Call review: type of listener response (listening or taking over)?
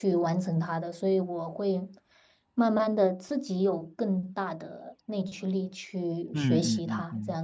taking over